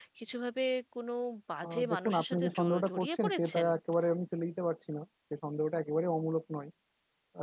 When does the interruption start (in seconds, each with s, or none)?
1.7 s